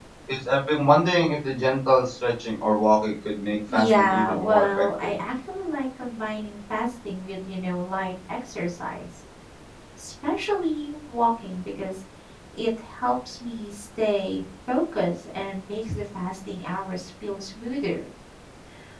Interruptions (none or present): present